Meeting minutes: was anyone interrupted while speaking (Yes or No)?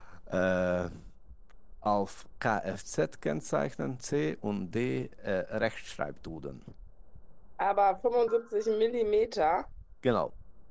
No